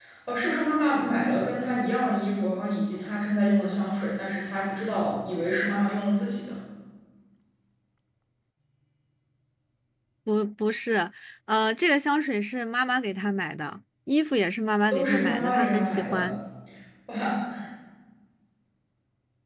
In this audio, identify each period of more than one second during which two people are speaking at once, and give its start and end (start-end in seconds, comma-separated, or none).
14.9-16.2